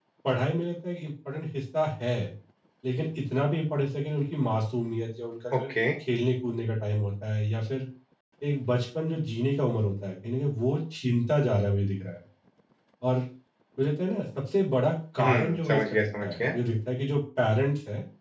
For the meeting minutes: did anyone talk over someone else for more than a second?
Yes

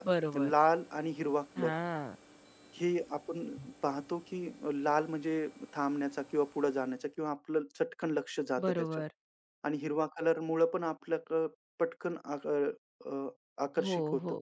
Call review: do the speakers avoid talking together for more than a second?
Yes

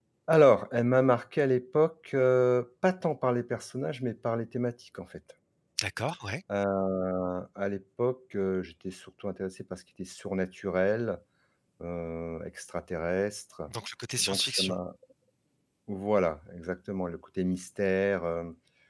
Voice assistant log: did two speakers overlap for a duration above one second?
No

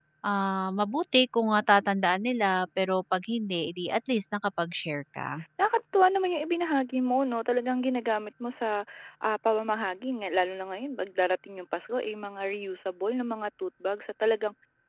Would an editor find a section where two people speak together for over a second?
No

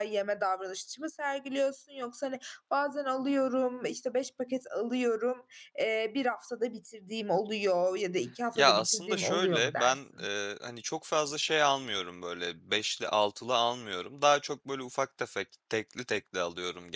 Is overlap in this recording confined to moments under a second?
No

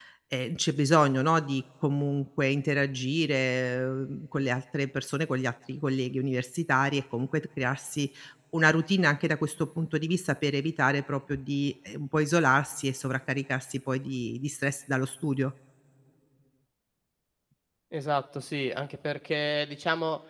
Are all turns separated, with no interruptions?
Yes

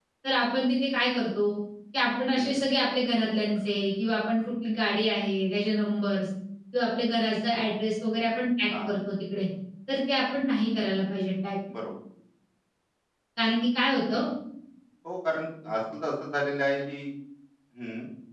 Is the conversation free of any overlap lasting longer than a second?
Yes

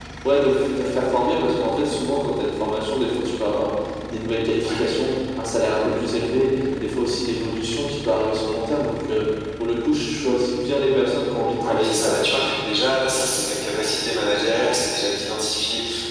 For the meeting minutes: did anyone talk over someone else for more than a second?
No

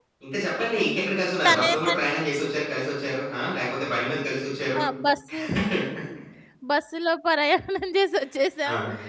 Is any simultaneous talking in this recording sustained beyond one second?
No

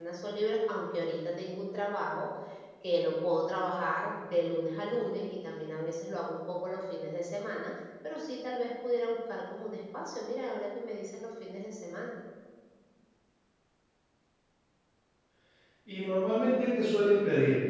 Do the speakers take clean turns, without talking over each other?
Yes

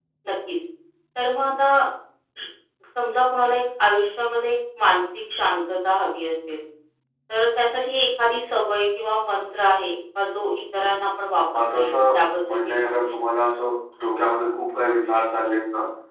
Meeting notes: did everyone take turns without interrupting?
No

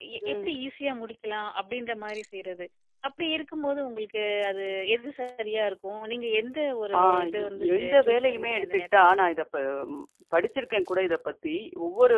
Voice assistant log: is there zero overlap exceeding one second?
No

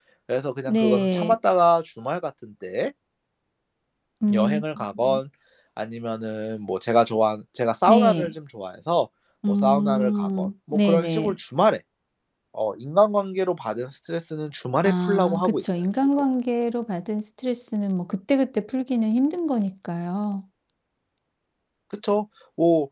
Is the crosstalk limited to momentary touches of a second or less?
No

